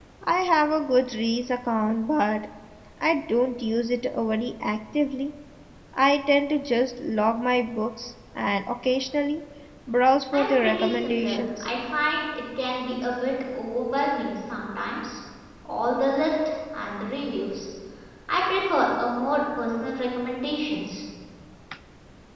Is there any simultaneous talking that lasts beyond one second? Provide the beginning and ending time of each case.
10.3-11.7

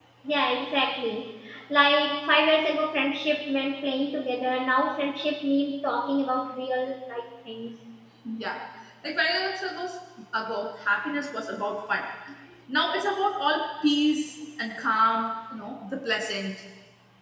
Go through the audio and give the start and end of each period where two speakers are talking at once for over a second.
none

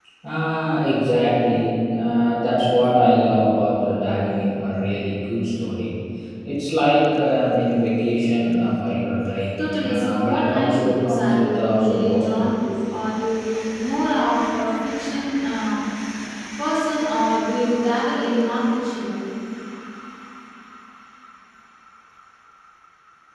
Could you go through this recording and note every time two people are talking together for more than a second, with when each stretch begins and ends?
9.6-12.3

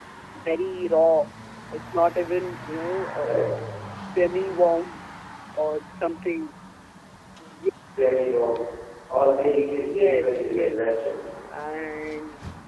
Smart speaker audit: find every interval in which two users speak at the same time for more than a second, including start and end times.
9.8-11.0

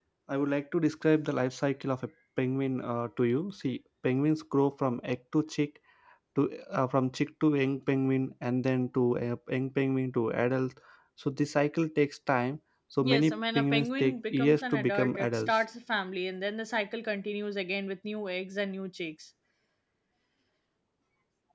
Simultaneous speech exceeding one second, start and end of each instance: 13.0-15.6

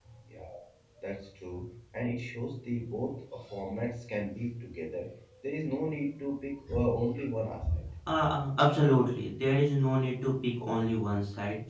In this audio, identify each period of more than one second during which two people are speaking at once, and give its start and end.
none

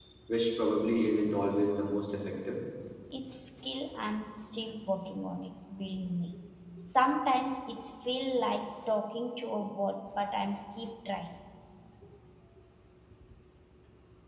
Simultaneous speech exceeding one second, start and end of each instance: none

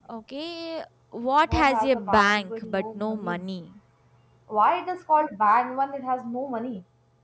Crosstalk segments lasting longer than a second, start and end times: 1.4-3.4

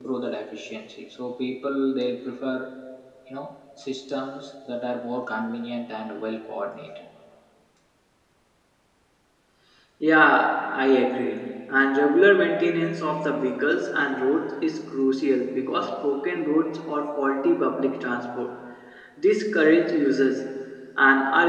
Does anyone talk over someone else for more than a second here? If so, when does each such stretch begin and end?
none

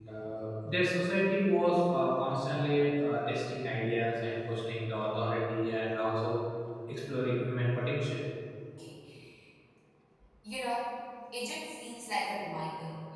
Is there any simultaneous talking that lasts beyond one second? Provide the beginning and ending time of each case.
none

